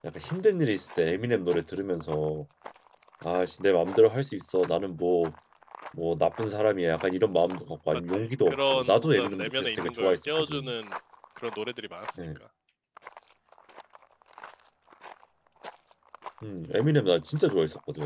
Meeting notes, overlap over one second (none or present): present